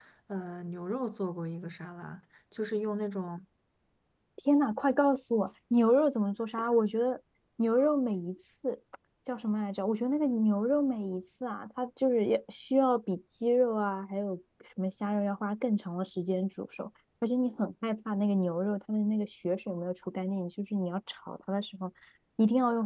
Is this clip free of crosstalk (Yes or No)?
Yes